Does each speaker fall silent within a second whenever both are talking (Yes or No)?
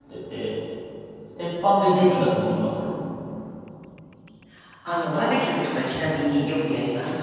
Yes